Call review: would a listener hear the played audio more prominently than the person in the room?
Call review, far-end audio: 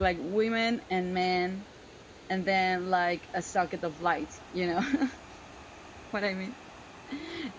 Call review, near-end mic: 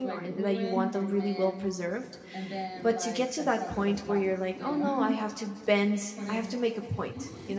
No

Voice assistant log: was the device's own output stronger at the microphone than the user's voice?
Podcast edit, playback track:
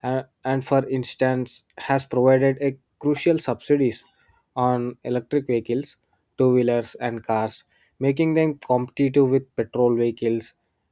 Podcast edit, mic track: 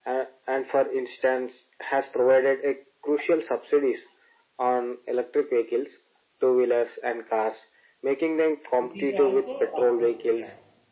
Yes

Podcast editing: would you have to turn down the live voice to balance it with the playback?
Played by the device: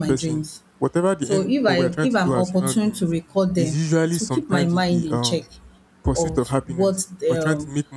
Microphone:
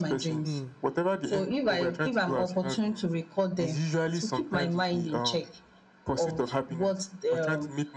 No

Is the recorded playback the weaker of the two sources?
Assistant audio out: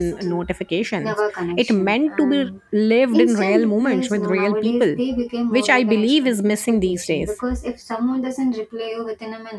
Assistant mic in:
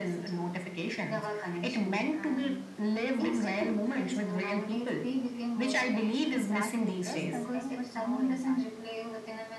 No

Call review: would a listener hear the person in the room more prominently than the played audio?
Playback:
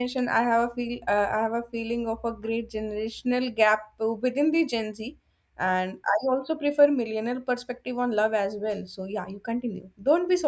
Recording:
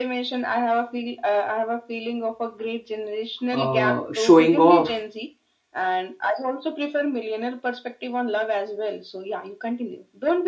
Yes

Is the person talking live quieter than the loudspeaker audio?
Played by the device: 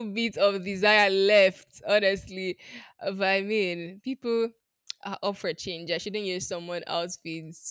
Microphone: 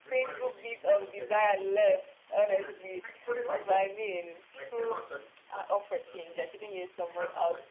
Yes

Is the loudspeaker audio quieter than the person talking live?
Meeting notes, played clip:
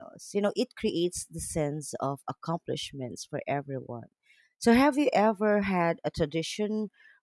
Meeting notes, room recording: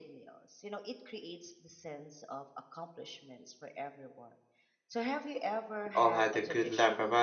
Yes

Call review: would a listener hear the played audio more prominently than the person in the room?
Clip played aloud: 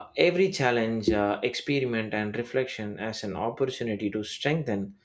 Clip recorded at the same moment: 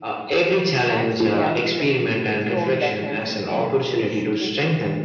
Yes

